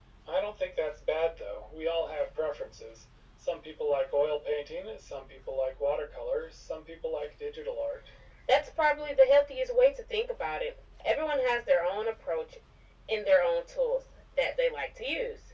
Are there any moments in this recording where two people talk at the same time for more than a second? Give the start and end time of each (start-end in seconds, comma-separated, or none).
none